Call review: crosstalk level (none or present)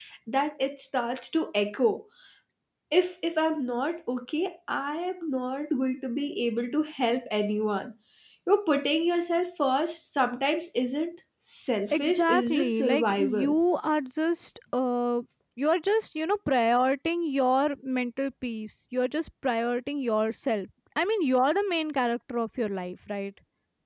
present